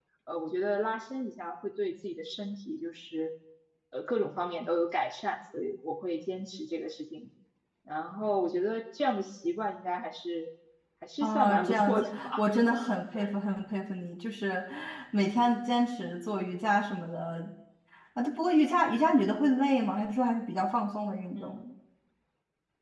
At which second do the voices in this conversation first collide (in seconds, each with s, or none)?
11.2 s